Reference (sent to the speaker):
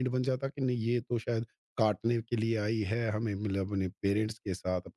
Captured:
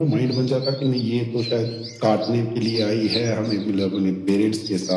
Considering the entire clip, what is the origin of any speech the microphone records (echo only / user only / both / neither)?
echo only